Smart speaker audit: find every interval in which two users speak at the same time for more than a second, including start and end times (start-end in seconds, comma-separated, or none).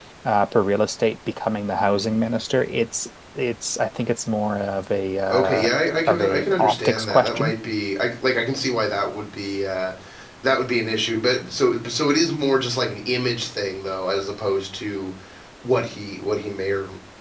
6.1-7.5